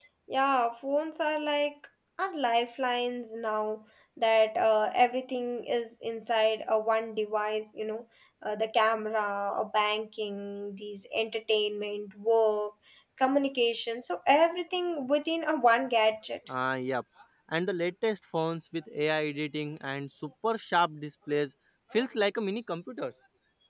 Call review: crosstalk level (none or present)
none